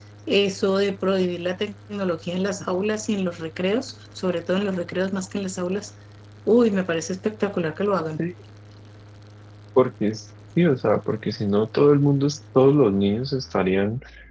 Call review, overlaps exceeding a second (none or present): none